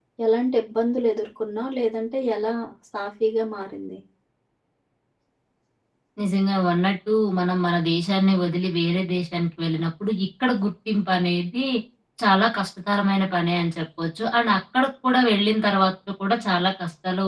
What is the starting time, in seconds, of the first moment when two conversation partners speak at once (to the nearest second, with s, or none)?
none